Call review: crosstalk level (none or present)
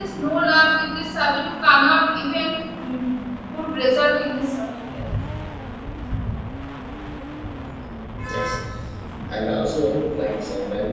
none